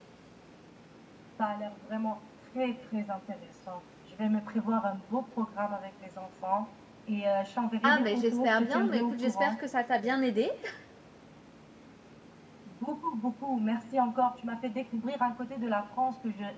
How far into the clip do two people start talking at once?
7.8 s

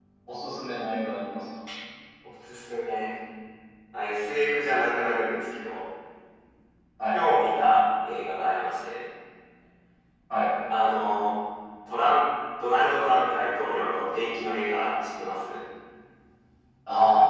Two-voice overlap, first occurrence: none

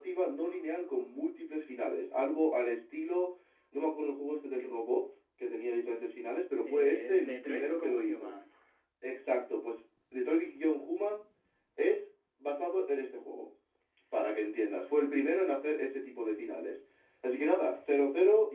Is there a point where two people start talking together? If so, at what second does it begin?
6.7 s

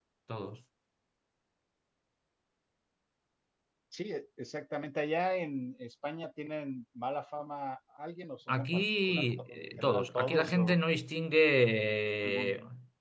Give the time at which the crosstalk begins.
8.5 s

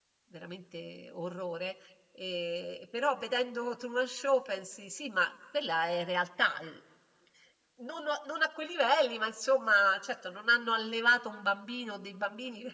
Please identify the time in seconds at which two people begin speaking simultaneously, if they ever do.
none

